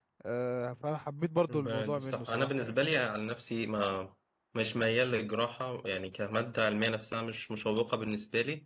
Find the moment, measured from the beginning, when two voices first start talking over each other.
1.5 s

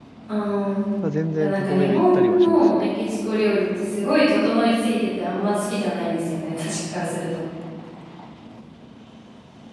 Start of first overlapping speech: 1.4 s

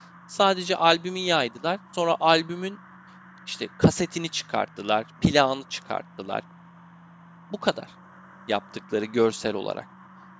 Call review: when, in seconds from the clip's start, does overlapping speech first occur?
none

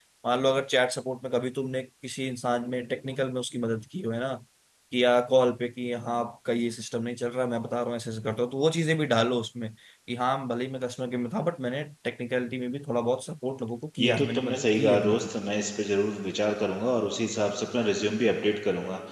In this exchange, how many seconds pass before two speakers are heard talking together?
14.0 s

